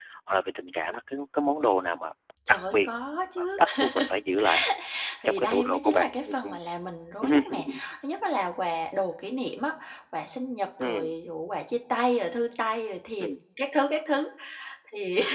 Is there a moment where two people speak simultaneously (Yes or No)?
Yes